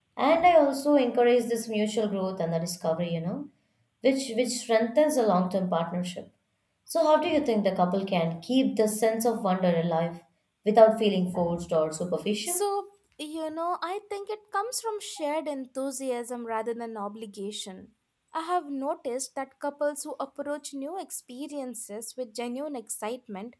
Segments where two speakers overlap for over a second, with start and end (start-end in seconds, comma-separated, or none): none